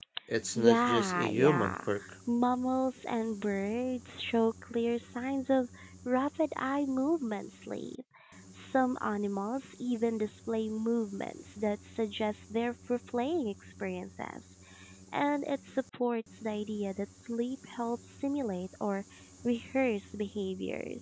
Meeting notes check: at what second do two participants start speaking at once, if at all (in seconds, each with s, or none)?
0.6 s